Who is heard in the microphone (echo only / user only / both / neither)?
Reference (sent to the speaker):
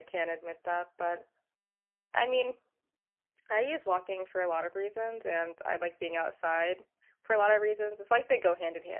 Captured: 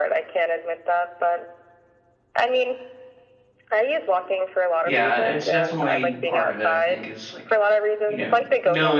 both